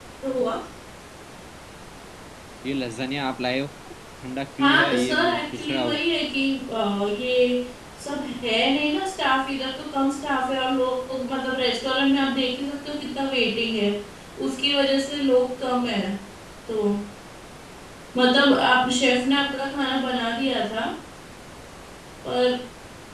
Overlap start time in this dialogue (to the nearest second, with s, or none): 5 s